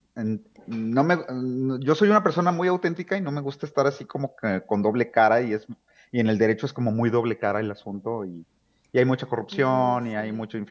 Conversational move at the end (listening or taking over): listening